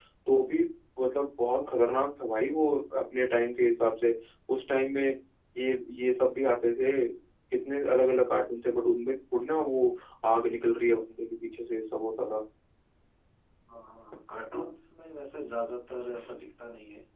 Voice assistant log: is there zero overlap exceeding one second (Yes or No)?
Yes